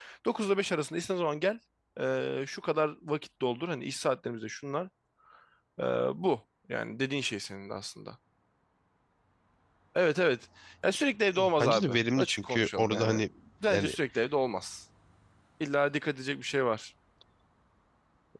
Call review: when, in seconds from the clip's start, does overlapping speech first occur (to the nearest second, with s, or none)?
11 s